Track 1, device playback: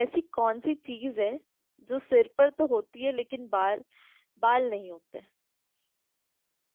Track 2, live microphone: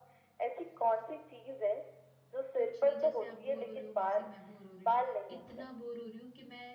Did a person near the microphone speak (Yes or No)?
Yes